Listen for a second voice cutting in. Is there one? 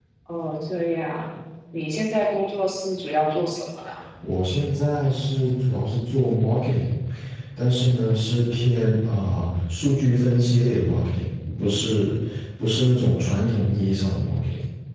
No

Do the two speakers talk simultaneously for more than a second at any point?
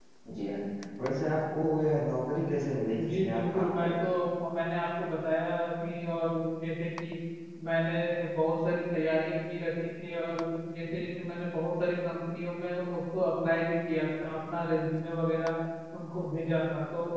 Yes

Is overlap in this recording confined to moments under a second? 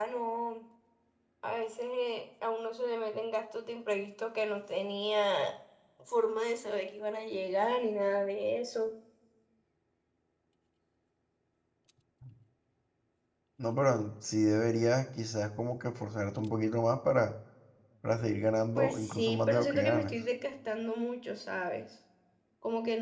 No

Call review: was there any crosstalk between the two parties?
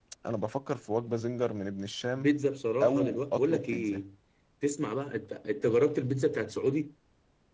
Yes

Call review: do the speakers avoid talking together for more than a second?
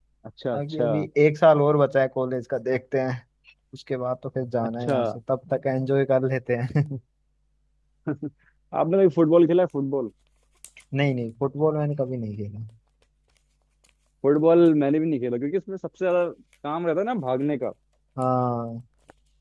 Yes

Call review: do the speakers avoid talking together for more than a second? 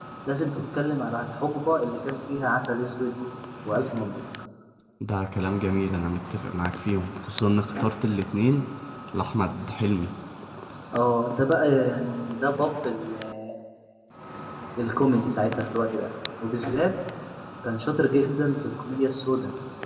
Yes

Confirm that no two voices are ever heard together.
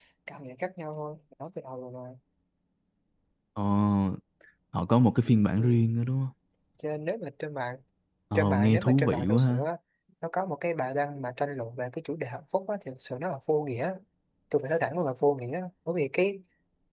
No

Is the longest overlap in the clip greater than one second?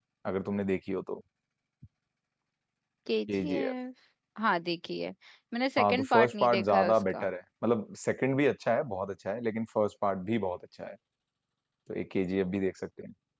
Yes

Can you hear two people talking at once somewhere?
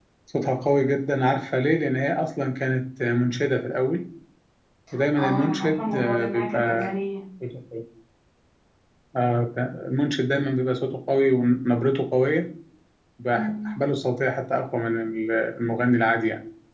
Yes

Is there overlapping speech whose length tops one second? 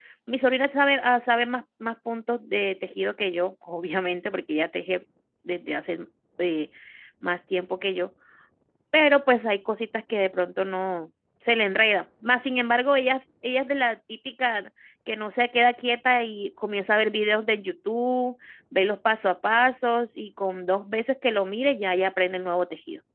No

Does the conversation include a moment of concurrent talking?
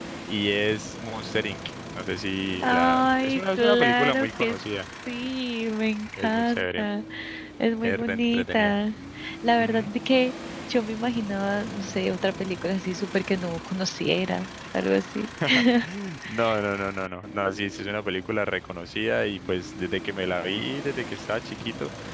Yes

